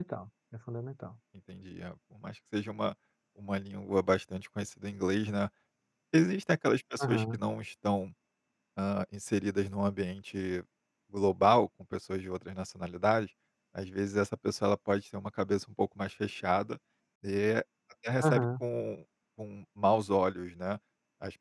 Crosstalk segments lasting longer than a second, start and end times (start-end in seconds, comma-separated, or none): none